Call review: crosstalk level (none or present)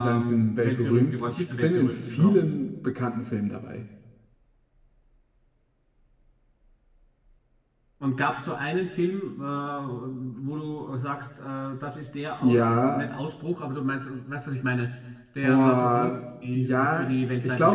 present